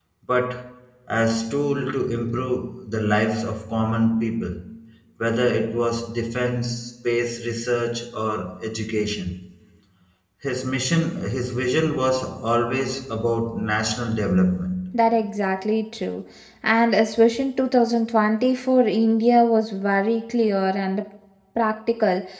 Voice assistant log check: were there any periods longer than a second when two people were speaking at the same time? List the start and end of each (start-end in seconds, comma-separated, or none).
none